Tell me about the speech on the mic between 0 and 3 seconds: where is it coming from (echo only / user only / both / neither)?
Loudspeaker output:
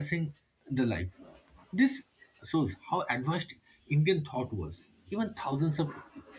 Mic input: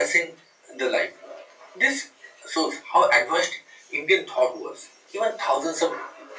echo only